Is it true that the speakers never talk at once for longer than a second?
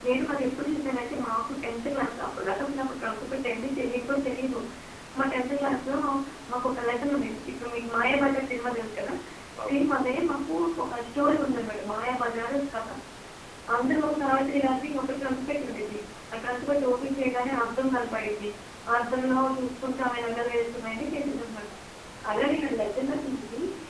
Yes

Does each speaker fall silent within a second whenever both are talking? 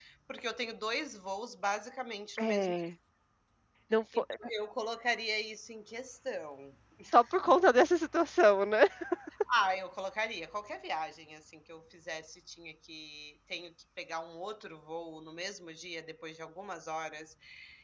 Yes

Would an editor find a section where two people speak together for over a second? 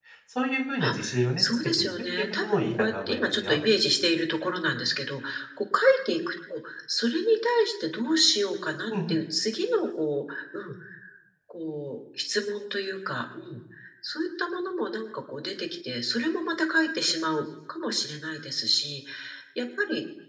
Yes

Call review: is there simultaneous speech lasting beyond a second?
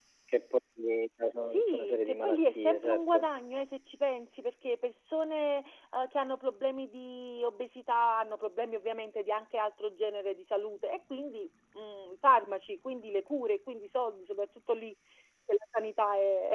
Yes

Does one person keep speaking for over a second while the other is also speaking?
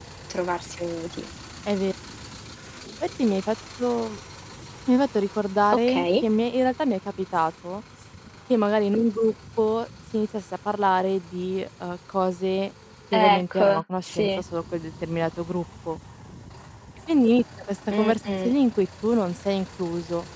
Yes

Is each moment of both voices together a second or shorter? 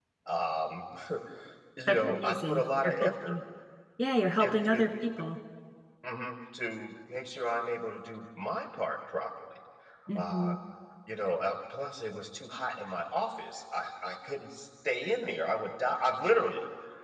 No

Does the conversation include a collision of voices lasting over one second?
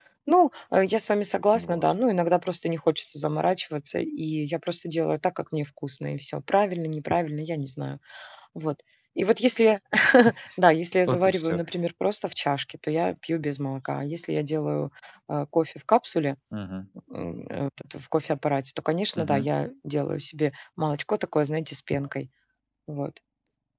No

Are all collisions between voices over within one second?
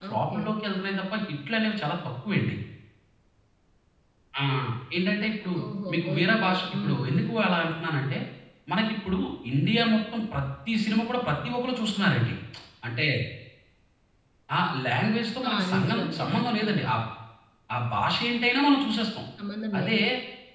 No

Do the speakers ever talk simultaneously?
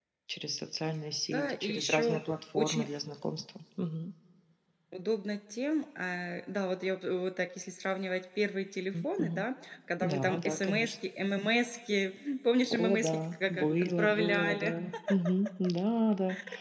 Yes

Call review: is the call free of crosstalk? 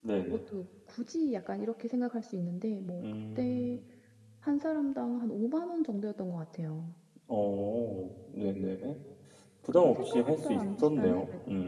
No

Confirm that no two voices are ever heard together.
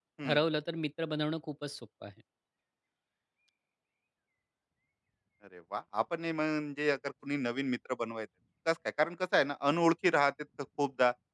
Yes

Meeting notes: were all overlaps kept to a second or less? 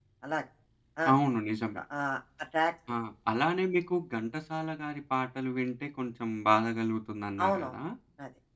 Yes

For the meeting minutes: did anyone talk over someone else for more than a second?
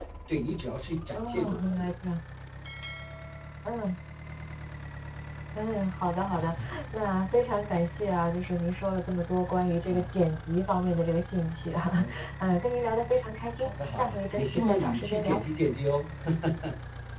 Yes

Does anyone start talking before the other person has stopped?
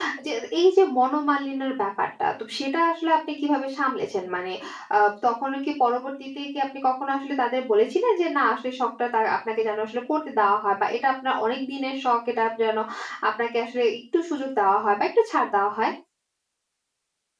No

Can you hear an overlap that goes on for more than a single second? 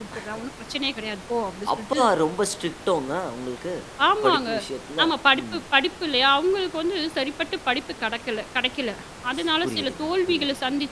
Yes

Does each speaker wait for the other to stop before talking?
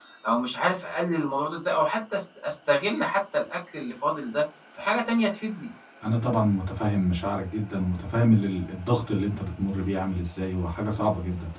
Yes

